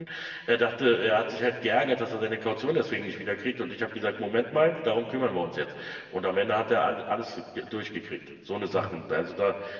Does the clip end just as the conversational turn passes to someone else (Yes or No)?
No